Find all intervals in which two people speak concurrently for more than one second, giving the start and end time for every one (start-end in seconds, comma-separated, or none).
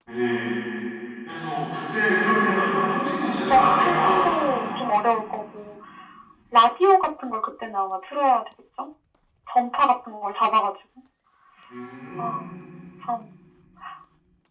3.5-4.7